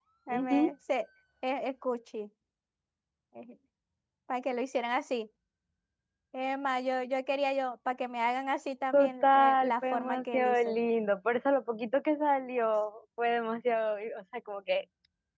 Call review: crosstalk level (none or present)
present